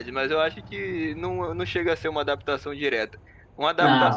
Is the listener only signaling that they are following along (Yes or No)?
Yes